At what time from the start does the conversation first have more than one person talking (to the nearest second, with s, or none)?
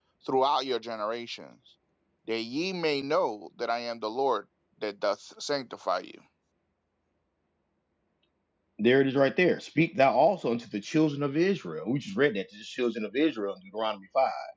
none